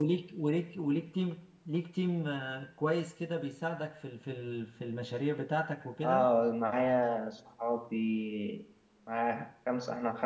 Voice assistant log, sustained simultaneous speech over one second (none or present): none